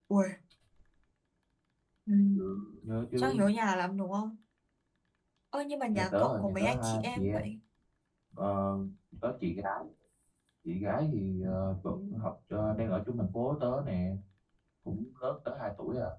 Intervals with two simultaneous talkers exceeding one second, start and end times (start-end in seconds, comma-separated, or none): 5.9-7.5